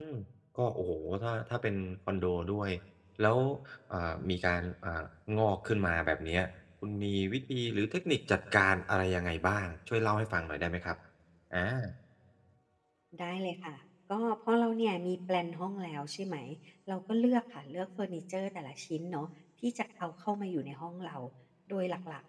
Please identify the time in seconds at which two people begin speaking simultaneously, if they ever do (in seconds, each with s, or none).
none